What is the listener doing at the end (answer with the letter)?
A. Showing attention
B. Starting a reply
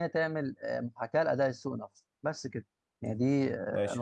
B